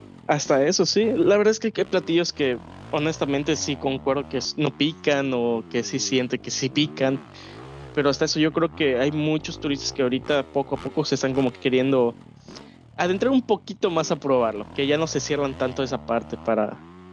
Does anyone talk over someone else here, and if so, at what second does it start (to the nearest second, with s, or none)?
none